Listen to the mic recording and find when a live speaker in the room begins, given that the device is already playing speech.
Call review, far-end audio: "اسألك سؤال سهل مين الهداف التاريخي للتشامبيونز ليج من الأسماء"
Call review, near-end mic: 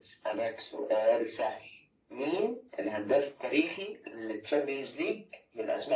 none

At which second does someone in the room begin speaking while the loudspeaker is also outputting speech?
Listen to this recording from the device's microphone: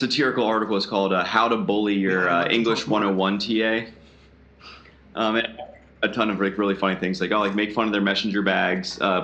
2 s

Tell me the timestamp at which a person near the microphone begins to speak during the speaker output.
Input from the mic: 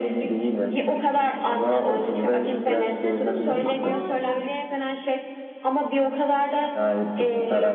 2 s

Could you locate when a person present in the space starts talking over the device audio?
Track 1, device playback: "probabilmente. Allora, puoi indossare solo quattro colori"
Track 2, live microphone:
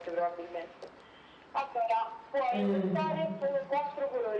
3 s

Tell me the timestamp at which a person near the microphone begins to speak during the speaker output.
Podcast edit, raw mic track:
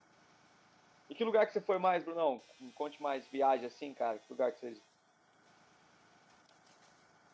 1 s

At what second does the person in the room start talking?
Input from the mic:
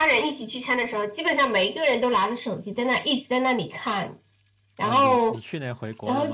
5 s

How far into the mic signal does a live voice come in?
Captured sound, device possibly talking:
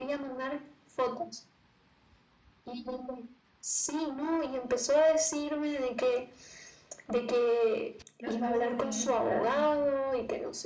8 s

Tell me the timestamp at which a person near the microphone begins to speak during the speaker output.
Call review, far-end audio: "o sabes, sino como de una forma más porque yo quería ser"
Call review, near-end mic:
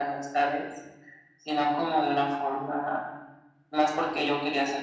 none

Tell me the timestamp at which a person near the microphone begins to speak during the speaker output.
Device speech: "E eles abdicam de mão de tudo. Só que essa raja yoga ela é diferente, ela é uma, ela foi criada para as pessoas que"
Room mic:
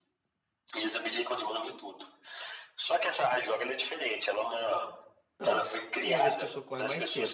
5 s

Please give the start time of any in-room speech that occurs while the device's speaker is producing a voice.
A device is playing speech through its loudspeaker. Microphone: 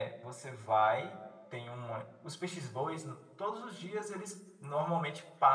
none

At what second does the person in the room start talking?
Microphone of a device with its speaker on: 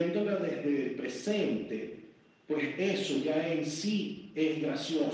none

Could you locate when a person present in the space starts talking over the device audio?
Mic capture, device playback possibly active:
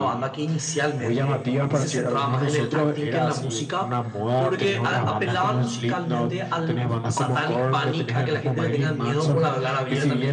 none

